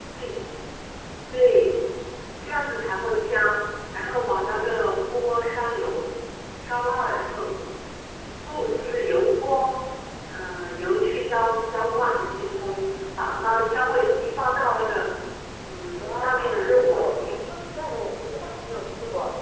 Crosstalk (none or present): present